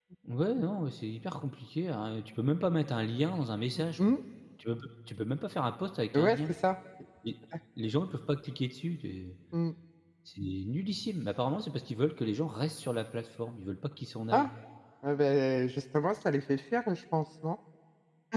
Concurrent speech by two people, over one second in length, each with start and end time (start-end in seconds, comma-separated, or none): none